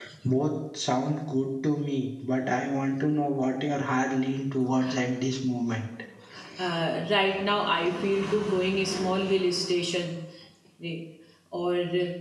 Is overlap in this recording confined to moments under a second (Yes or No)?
Yes